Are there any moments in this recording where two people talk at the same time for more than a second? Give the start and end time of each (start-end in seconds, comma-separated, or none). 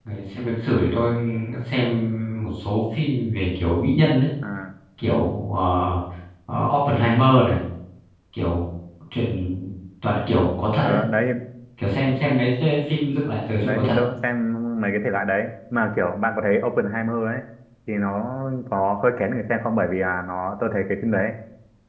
none